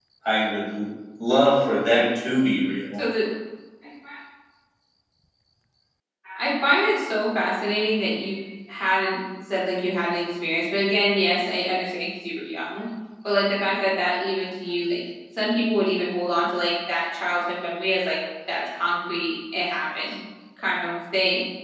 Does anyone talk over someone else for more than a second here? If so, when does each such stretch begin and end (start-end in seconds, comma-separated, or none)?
none